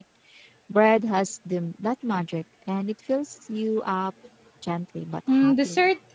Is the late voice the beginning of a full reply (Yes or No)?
Yes